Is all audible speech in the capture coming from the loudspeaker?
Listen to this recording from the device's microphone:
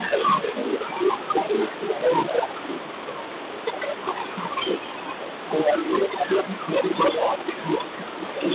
Yes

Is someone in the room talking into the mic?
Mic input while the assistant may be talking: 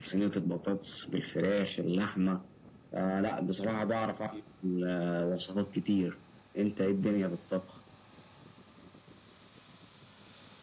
No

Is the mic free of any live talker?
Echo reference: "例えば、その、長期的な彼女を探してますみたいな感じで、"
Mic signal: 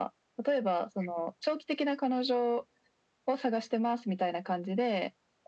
Yes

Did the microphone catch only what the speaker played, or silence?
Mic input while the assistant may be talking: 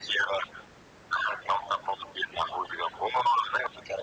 Yes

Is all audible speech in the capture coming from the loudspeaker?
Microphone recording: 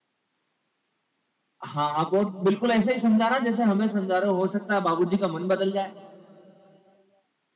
No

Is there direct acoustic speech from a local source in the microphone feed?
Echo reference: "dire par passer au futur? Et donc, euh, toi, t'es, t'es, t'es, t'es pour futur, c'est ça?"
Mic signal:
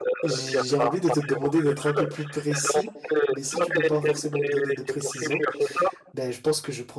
Yes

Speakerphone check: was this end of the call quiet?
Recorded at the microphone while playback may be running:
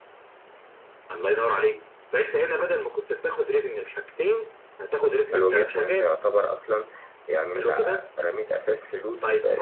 No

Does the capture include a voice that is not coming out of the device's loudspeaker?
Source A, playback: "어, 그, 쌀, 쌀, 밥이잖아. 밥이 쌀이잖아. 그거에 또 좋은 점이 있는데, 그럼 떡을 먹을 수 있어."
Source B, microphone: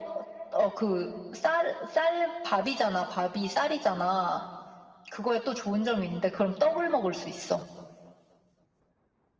No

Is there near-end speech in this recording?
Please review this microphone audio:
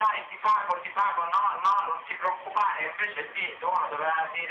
No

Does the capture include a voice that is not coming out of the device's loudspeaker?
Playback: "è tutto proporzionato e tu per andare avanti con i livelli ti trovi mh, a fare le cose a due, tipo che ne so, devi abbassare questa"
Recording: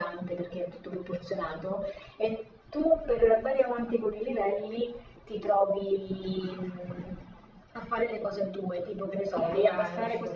Yes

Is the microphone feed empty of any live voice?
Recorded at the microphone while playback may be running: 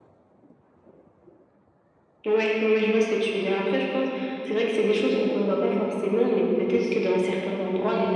Yes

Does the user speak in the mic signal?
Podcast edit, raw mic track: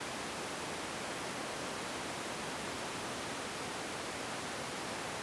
No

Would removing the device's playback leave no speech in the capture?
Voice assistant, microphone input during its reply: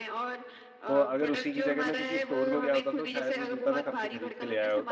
No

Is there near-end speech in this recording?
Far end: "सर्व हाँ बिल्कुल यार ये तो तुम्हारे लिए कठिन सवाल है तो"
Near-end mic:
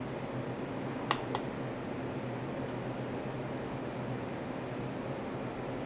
No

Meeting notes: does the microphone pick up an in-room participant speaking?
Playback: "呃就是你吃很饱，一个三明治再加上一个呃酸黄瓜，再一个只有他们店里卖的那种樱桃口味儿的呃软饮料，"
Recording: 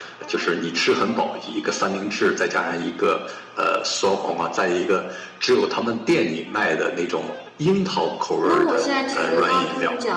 Yes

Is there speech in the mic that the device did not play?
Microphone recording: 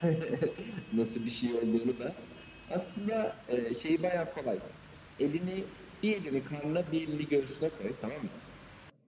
No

